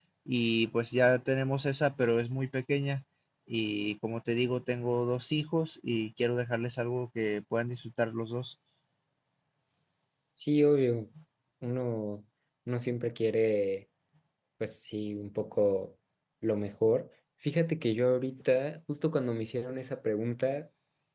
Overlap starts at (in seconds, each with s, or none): none